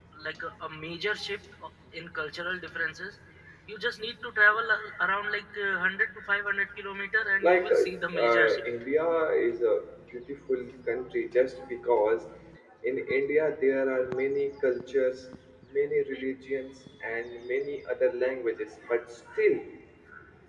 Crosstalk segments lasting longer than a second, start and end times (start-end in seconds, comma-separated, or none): 7.4-8.6